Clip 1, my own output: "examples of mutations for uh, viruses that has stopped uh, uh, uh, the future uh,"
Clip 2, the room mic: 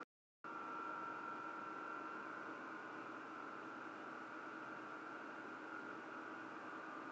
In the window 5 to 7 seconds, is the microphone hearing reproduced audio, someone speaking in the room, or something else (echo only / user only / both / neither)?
neither